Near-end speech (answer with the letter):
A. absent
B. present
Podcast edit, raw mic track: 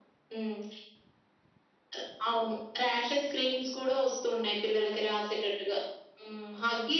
A